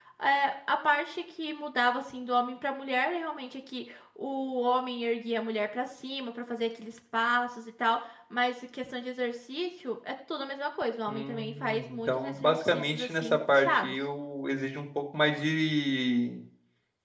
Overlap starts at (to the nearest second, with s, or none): 11 s